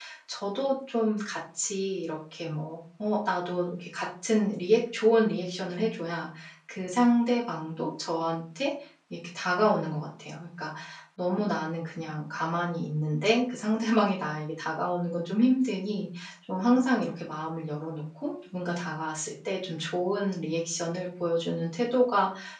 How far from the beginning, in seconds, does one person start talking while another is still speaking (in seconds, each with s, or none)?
none